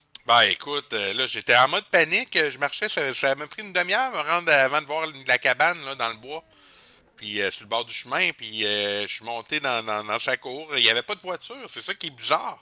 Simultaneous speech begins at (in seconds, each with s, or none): none